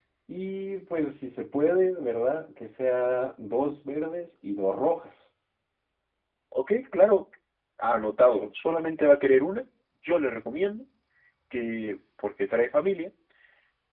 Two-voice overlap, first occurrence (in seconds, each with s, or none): none